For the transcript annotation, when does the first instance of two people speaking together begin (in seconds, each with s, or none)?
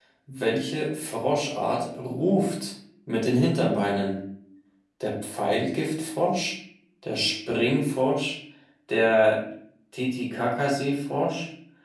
none